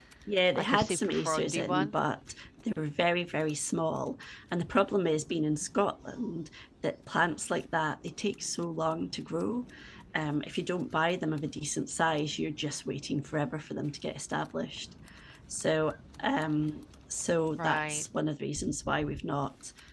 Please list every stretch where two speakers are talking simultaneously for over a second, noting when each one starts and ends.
0.6-1.9

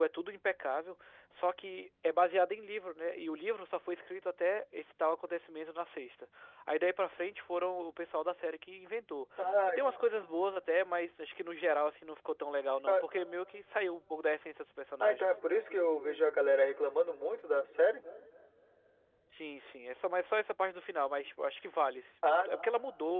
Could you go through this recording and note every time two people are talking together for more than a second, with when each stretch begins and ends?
none

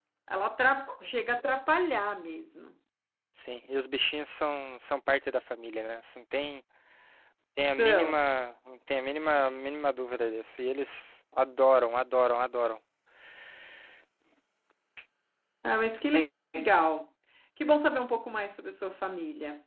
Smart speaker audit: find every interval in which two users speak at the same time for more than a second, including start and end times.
none

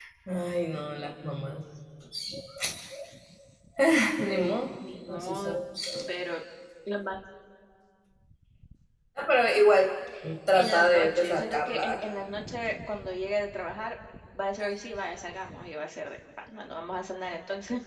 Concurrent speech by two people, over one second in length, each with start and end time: 10.5-11.9

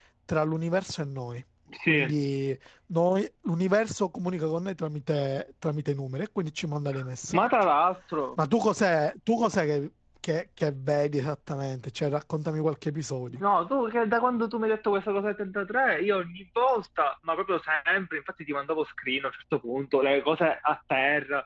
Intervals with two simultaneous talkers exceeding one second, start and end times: none

